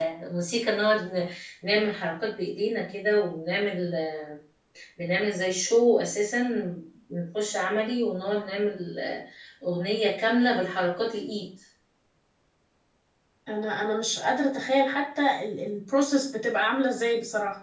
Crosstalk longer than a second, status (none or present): none